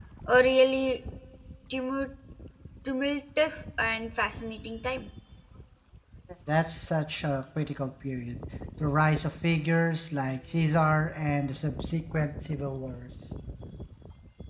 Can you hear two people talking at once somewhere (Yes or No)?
No